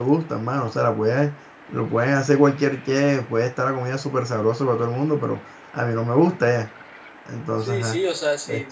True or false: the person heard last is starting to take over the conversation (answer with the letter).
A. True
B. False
A